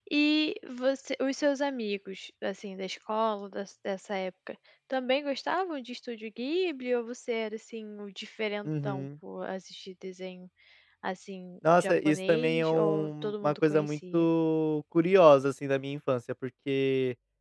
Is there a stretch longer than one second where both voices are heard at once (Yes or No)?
Yes